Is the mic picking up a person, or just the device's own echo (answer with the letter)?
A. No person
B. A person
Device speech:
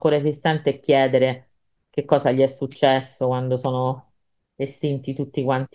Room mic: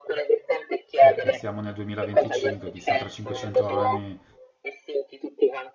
B